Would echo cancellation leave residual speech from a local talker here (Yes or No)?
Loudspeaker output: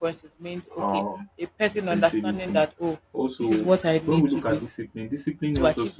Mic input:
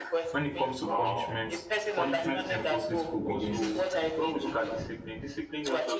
Yes